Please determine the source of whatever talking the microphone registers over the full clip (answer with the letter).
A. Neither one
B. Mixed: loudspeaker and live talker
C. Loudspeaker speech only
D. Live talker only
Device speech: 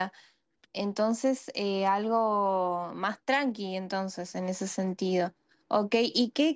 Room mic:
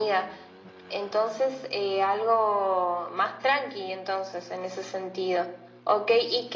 C